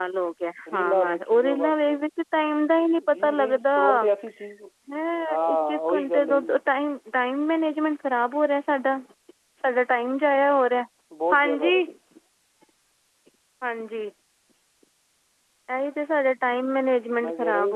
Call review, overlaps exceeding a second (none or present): present